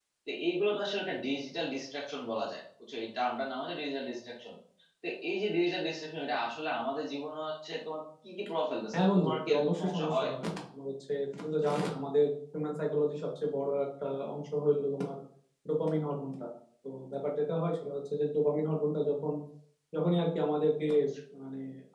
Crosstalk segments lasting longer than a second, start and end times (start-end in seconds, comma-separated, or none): 8.9-10.3